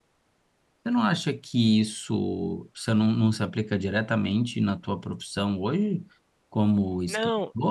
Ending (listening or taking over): listening